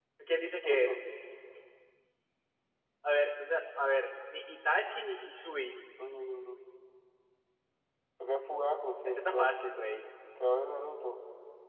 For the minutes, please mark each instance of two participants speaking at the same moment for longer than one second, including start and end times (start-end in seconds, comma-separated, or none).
none